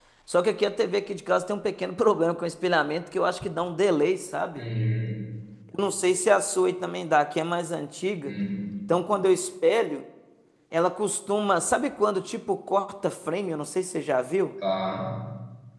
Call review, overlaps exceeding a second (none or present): none